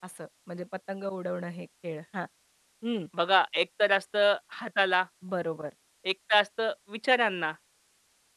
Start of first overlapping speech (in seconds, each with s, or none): none